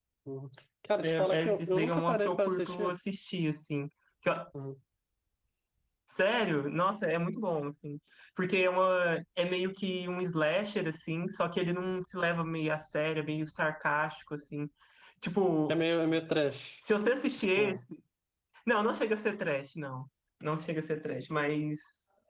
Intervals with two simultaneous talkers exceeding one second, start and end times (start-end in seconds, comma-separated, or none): 1.0-2.9